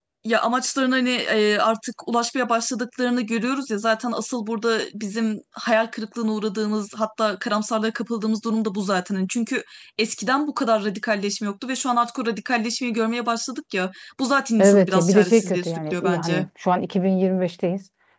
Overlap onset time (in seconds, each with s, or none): 14.6 s